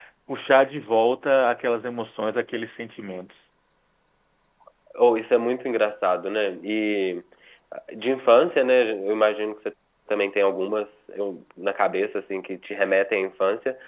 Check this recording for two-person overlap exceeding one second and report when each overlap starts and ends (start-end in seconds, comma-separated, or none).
none